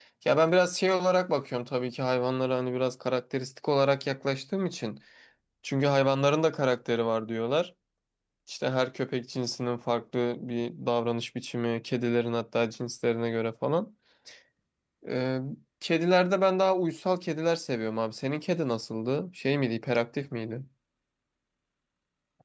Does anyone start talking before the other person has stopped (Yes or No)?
No